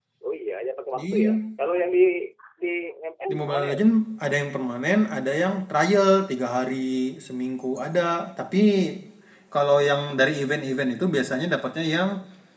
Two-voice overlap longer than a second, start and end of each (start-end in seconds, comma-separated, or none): none